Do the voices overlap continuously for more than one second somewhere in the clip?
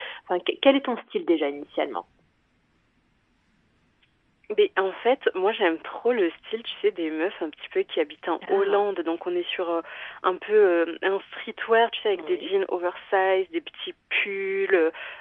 No

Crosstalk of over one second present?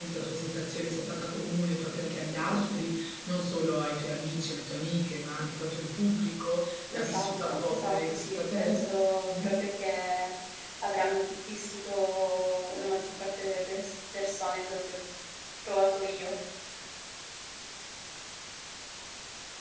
Yes, from 7.0 s

